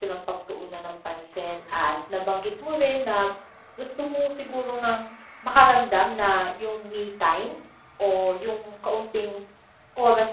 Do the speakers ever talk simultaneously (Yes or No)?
No